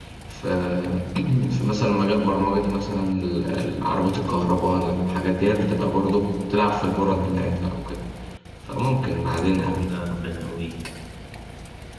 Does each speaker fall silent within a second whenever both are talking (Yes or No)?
Yes